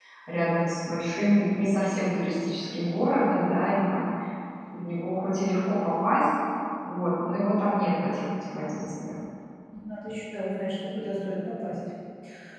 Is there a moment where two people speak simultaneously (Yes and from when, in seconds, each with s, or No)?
No